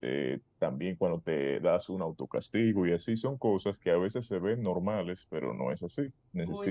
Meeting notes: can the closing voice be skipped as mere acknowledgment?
Yes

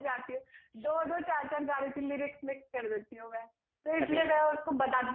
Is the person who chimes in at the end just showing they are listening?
Yes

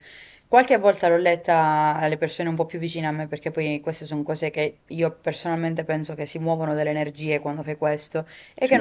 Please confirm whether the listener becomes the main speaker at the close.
No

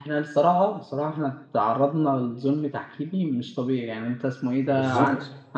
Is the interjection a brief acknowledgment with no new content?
Yes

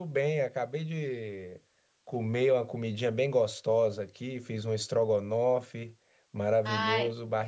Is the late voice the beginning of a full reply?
No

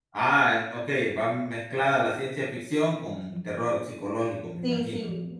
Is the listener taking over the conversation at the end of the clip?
Yes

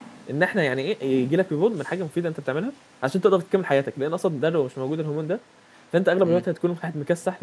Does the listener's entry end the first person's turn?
No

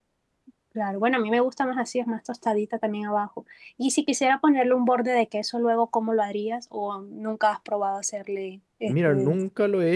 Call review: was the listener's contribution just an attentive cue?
No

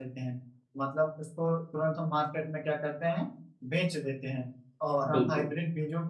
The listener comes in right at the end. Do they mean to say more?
No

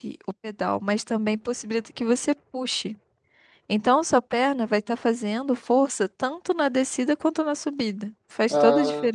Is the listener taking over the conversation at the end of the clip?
Yes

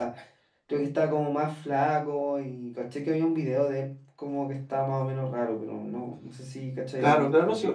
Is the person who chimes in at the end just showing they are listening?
No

